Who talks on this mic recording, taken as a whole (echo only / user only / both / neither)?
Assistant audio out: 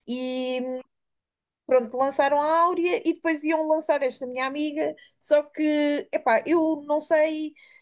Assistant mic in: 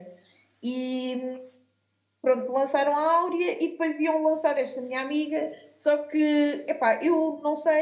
echo only